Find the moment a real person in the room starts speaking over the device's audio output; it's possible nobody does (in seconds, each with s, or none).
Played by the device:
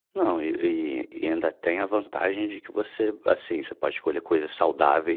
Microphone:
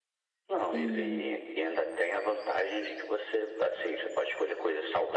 0.5 s